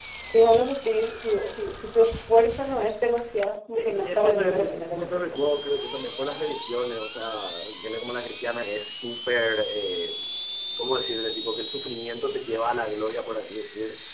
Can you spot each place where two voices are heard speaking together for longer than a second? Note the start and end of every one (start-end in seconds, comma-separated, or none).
3.8-5.6